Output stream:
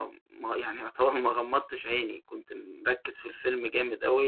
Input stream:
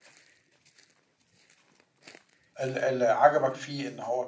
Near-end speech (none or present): present